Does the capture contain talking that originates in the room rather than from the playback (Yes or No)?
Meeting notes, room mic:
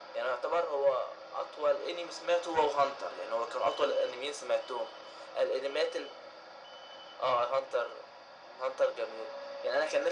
No